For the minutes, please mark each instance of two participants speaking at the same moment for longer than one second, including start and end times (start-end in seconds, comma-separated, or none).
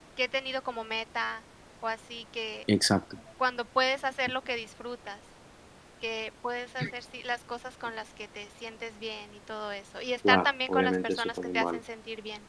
10.3-11.8